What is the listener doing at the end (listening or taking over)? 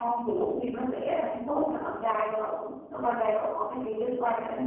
taking over